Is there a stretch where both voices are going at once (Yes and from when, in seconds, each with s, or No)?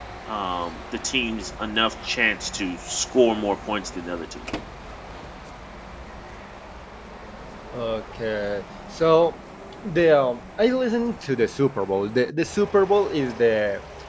No